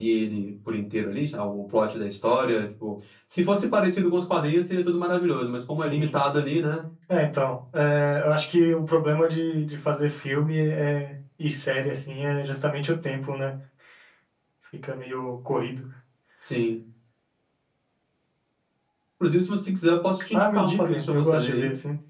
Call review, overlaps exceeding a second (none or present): present